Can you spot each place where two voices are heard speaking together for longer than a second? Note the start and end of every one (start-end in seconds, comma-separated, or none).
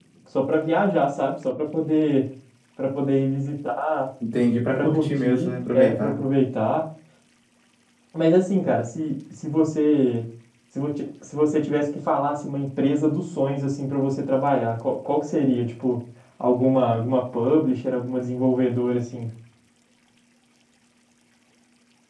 4.7-6.2